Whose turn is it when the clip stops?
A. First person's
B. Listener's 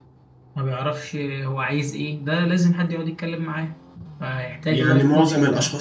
B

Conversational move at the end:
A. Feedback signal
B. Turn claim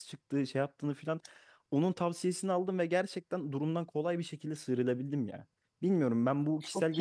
A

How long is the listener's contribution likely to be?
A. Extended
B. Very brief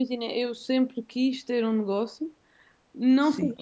B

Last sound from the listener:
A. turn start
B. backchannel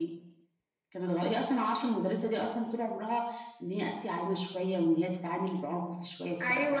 A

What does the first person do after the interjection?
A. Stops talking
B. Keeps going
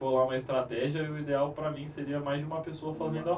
A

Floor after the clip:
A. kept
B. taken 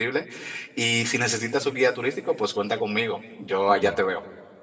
B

